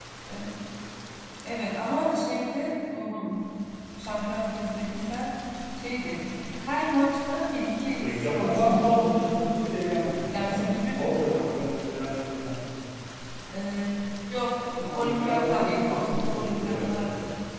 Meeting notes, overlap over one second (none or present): present